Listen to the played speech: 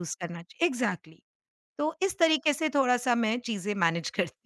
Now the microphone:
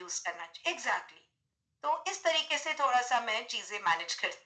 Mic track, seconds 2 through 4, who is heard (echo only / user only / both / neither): echo only